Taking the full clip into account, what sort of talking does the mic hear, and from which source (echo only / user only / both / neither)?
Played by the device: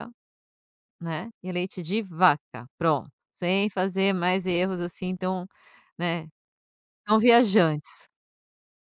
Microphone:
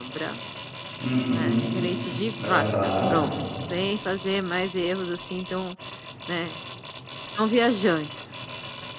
both